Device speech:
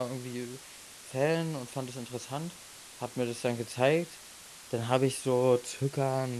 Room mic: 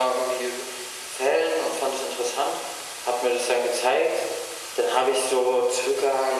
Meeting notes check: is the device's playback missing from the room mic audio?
No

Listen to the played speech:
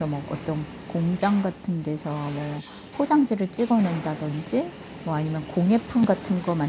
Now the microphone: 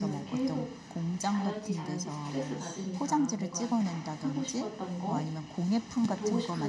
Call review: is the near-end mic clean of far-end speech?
No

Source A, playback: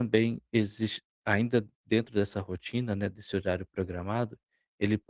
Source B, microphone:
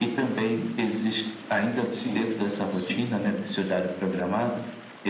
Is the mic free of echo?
No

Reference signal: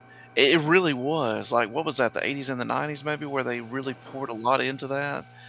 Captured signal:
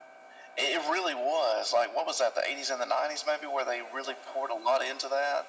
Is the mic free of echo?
No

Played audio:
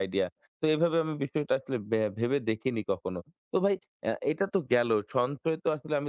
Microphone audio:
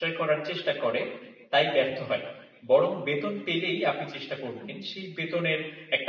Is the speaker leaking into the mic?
No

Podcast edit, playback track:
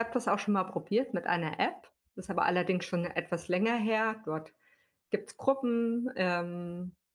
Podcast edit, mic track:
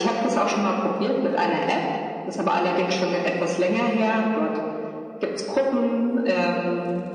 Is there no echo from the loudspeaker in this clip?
No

